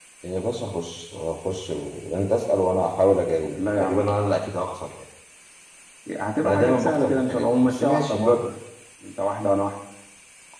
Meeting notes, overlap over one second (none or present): present